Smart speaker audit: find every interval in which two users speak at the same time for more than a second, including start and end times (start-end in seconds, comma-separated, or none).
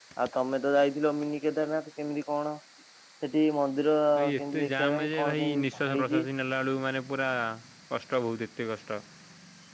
4.4-6.2